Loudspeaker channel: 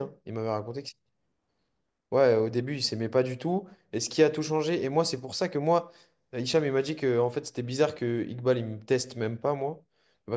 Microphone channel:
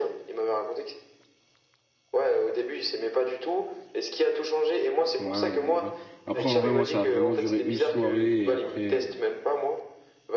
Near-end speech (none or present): present